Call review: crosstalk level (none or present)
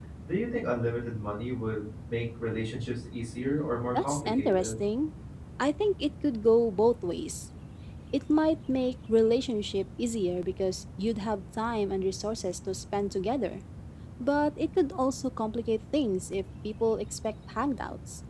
present